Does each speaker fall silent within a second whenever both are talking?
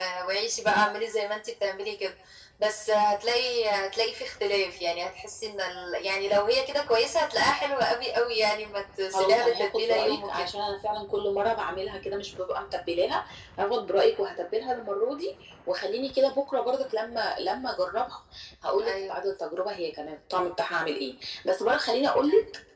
No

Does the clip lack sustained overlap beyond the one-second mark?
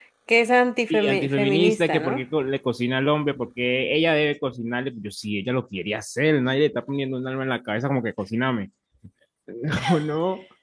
No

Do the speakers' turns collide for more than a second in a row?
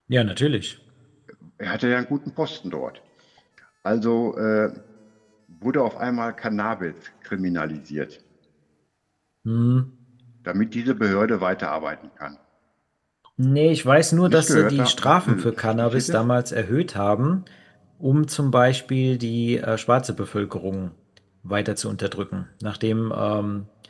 Yes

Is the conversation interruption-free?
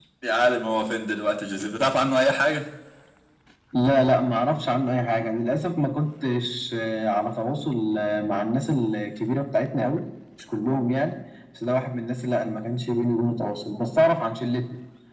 Yes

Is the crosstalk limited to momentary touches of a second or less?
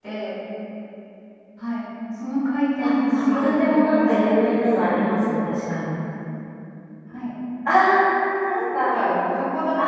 No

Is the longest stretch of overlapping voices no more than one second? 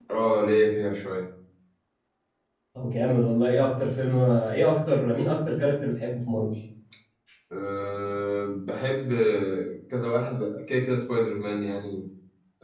Yes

